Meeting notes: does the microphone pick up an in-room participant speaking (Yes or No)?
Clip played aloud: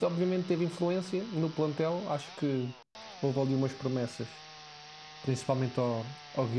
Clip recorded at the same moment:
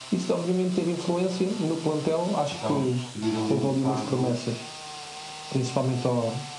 Yes